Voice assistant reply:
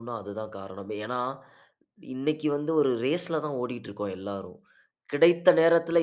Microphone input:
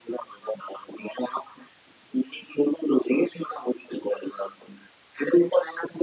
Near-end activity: none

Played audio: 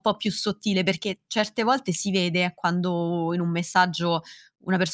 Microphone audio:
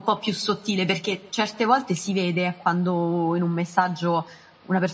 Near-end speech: none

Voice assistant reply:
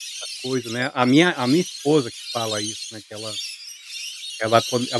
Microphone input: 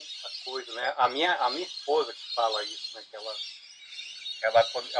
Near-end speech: none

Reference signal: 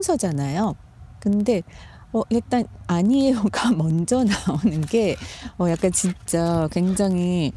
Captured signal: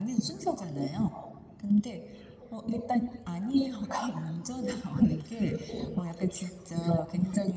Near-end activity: none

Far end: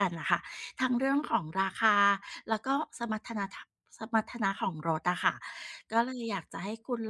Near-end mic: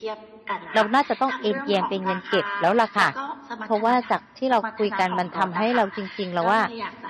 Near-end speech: present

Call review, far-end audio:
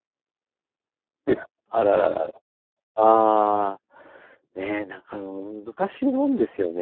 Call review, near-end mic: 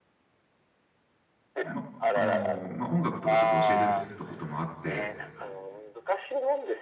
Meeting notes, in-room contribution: present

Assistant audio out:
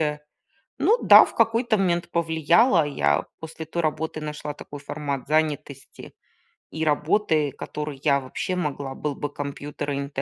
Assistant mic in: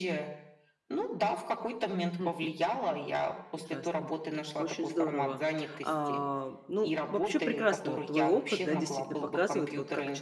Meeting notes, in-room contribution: present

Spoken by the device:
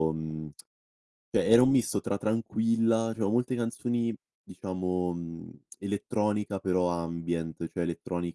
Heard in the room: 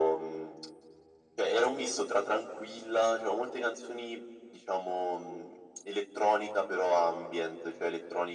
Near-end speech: none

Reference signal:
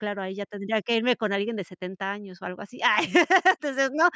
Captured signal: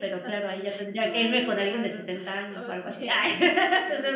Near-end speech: present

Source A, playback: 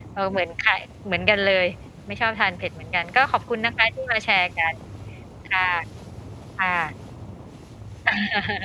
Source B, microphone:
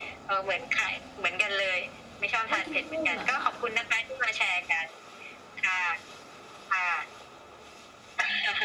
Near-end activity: present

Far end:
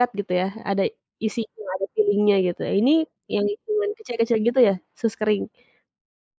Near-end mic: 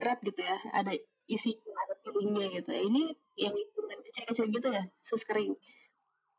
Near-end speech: none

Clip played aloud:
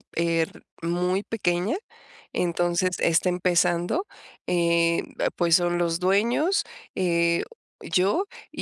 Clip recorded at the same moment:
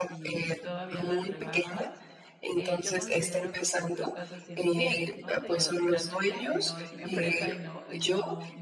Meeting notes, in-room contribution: present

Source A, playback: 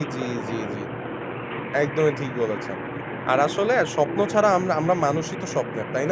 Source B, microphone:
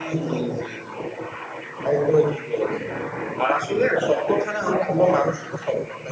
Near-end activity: none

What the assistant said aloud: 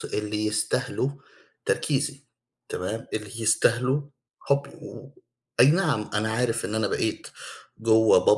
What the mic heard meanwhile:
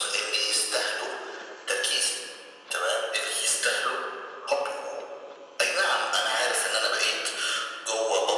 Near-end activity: none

